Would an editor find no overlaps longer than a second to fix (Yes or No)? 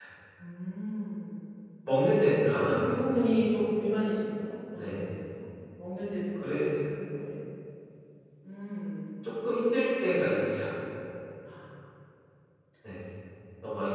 Yes